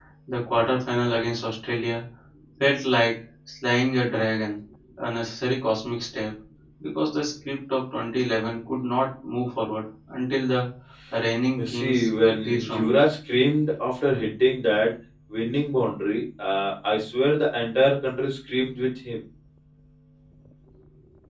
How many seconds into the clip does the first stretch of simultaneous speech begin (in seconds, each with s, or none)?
11.6 s